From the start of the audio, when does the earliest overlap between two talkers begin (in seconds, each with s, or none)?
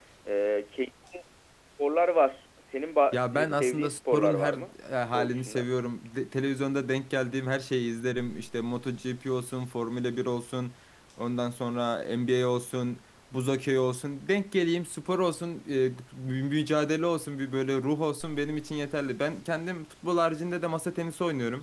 3.1 s